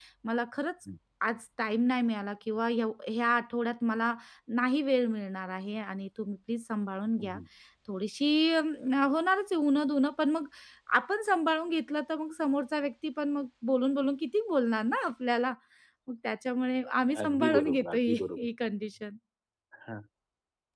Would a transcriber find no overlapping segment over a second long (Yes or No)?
No